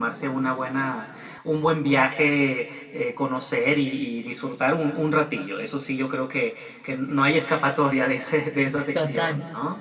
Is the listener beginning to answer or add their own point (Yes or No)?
Yes